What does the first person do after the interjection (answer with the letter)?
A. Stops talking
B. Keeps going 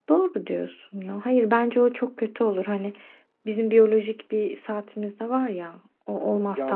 B